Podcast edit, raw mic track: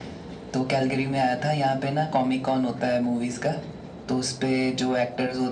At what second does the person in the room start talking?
none

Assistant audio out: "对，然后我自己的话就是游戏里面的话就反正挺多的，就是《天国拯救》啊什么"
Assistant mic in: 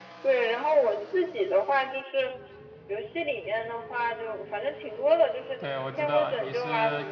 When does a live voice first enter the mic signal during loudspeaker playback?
6 s

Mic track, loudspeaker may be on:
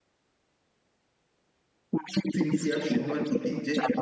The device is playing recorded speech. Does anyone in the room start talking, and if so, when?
2 s

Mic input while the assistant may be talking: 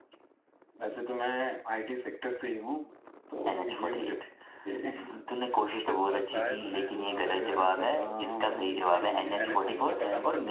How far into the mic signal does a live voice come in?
6 s

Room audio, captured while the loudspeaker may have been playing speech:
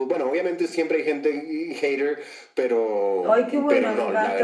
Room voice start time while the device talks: 3 s

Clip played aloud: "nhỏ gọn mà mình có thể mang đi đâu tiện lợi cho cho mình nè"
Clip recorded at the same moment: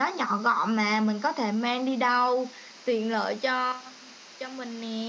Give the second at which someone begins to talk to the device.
none

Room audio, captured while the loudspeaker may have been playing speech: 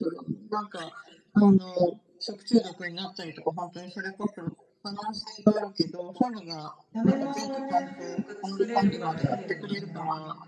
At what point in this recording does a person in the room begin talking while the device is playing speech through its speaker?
7 s

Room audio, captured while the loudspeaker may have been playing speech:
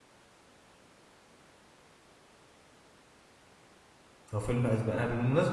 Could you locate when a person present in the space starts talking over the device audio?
4 s

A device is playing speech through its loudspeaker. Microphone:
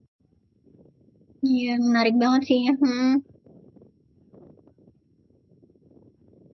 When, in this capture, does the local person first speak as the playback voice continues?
1 s

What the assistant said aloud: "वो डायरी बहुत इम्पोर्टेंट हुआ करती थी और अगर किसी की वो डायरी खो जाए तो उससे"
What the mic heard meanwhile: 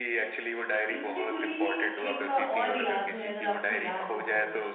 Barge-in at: 1 s

